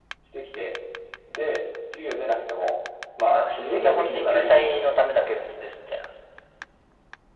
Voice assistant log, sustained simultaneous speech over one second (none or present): present